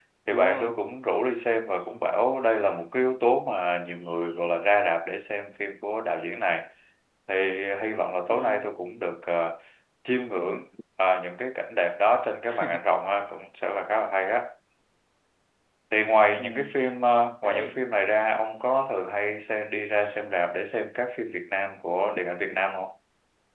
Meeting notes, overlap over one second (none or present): none